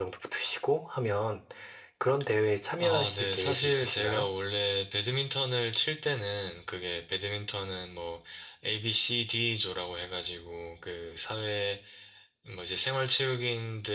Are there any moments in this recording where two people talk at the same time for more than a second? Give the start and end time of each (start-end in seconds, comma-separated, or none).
2.8-4.3